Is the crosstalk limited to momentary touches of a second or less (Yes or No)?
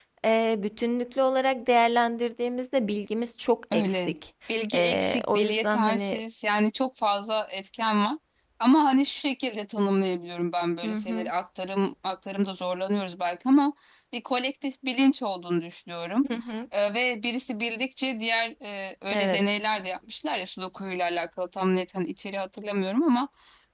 No